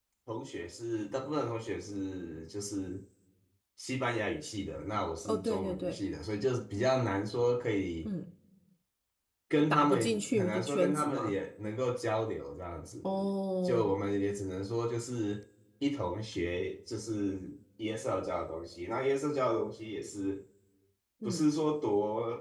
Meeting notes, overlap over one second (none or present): present